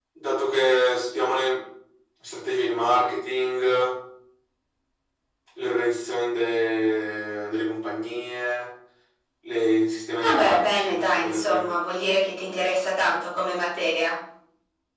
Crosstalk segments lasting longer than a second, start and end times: 10.2-11.7

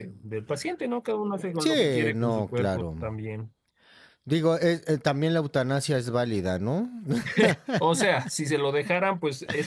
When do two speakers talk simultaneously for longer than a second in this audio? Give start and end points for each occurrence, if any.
1.6-2.9

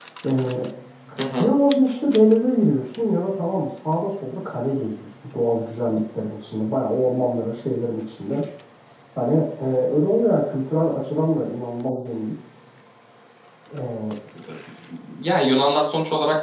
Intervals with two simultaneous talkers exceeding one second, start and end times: none

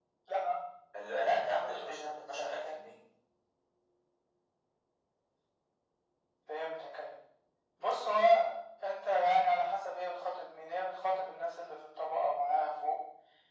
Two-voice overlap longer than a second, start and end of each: 1.6-2.8

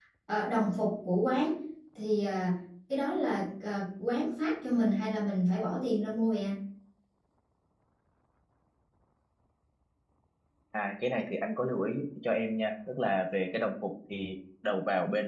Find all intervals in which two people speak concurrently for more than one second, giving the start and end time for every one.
none

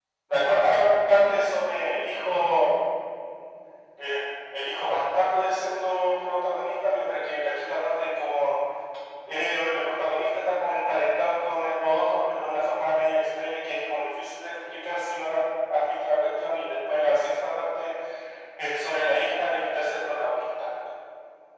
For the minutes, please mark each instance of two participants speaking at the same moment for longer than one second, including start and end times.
none

